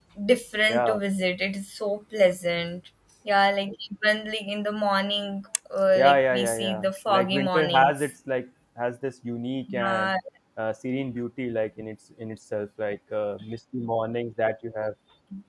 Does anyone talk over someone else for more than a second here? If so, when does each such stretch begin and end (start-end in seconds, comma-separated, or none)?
6.0-8.1